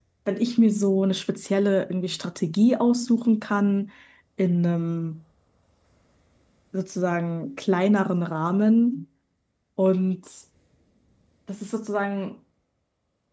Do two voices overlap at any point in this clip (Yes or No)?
No